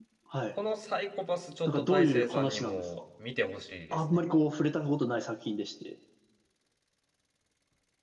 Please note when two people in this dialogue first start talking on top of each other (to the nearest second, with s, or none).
2 s